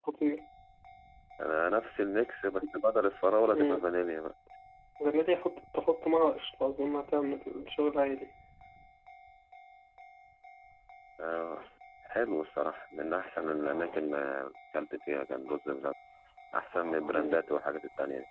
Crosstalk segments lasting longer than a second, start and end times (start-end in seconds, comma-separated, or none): none